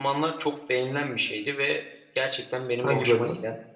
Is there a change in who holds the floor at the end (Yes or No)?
No